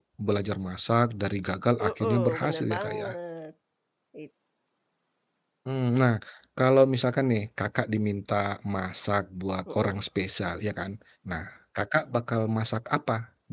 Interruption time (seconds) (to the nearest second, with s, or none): 2 s